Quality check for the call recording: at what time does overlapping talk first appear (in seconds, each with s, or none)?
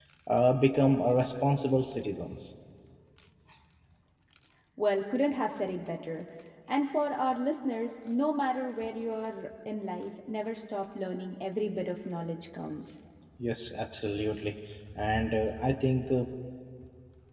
none